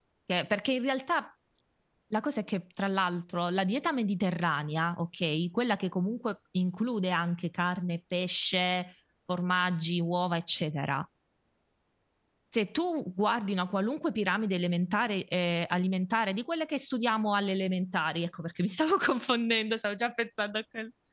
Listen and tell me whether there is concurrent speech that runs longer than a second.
No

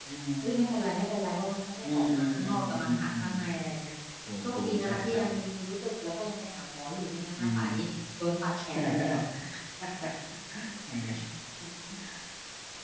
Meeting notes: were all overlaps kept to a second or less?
No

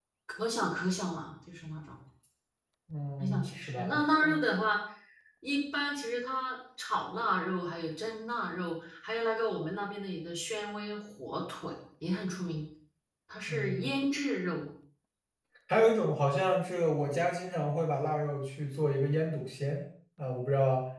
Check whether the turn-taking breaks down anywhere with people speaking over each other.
Yes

